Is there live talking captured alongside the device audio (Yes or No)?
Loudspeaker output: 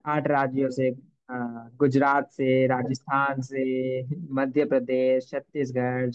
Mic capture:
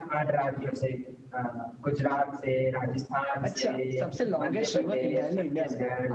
Yes